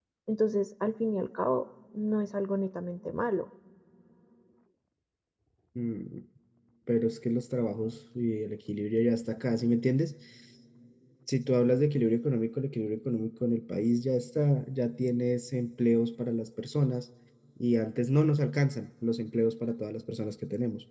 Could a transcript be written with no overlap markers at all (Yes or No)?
Yes